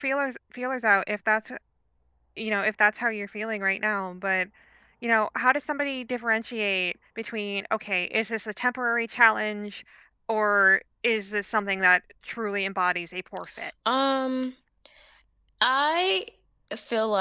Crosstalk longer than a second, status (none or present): none